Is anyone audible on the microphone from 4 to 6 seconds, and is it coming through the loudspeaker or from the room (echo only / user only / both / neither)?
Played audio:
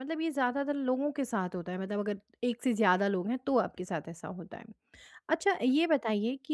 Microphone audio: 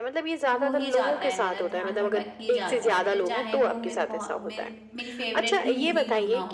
both